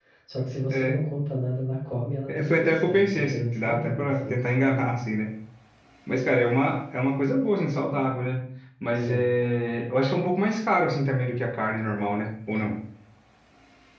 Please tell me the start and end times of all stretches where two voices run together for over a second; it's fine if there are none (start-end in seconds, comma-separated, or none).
2.3-4.4